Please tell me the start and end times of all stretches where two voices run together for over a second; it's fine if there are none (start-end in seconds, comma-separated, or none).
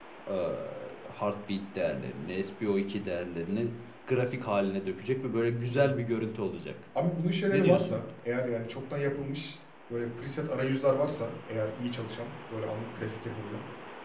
none